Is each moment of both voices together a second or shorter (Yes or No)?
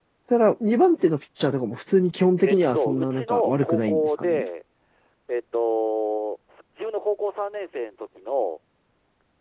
No